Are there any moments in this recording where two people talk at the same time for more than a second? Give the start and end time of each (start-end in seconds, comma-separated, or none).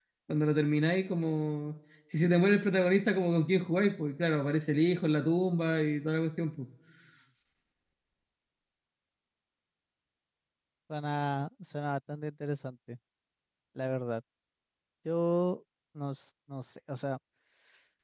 none